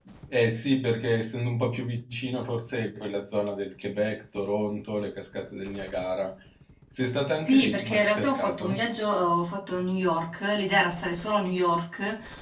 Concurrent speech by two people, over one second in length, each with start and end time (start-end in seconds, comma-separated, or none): 7.4-8.8